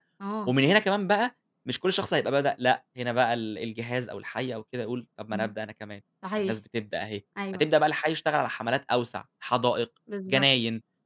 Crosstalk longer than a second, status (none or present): none